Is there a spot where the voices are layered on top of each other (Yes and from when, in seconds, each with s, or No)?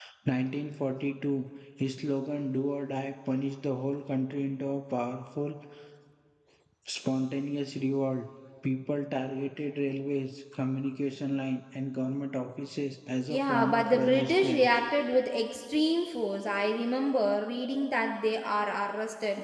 Yes, from 13.3 s